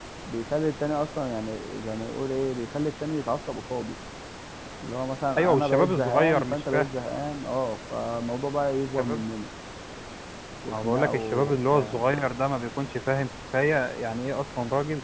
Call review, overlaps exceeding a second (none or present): present